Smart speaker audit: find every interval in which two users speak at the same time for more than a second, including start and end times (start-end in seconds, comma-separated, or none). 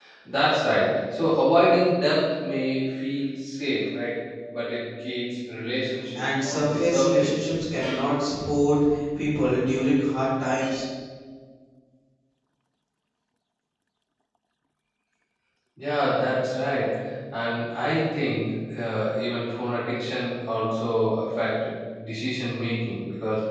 6.2-7.4